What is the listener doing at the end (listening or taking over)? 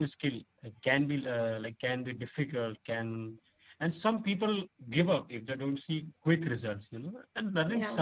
listening